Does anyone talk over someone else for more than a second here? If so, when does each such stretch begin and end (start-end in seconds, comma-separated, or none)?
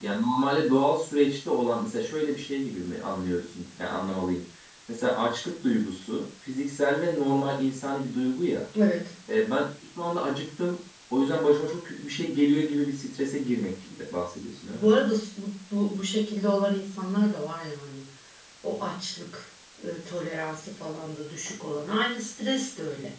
none